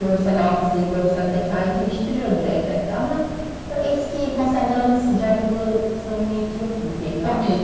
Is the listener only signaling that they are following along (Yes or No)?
No